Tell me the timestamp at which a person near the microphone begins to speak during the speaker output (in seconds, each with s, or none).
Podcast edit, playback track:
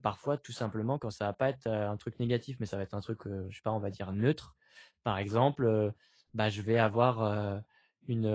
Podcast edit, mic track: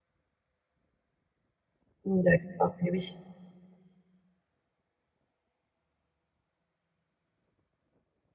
2.0 s